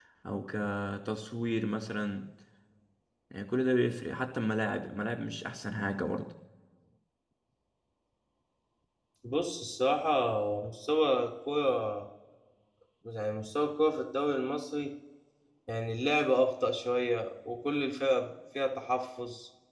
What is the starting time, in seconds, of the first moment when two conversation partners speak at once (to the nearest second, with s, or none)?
none